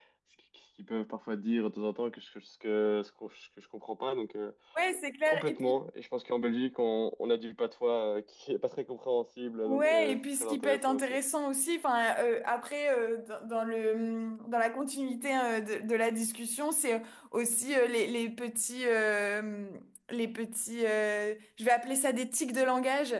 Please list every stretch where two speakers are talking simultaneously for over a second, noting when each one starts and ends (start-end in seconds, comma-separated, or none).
9.7-11.0